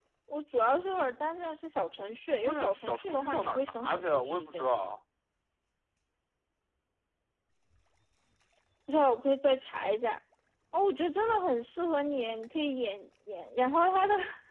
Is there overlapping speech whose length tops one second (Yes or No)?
Yes